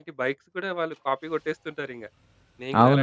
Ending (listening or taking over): taking over